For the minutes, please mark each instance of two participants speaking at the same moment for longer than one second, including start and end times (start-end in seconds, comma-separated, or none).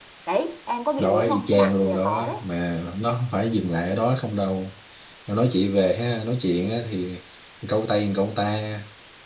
1.0-2.4